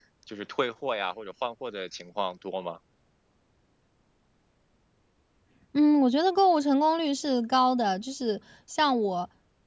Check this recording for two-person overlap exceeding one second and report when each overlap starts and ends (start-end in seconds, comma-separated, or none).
none